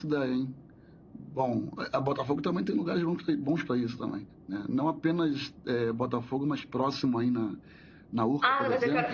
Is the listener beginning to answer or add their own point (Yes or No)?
Yes